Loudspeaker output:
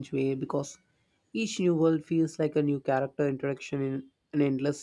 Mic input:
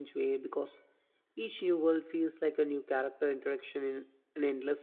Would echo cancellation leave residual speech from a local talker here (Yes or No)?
No